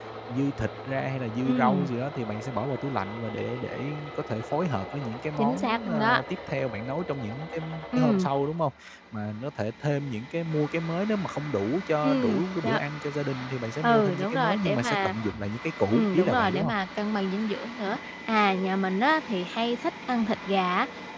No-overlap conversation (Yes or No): No